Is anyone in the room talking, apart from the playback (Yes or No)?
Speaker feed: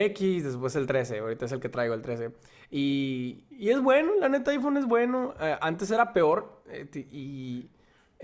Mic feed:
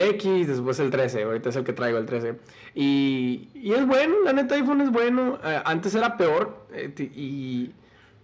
No